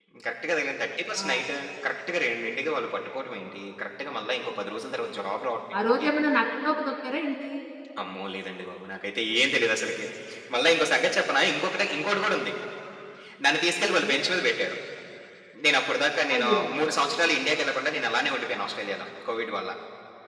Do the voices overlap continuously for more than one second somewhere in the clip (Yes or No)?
No